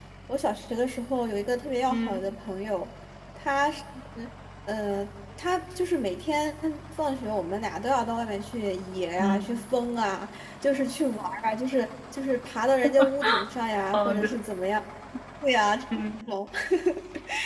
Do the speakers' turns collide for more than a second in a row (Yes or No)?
No